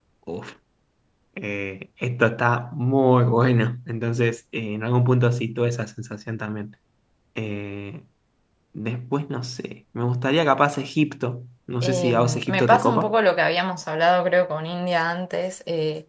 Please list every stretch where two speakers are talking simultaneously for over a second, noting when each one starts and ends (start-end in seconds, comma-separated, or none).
11.8-13.1